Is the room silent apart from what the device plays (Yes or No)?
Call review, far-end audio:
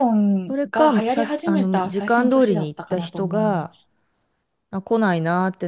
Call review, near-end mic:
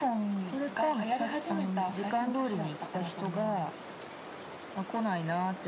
Yes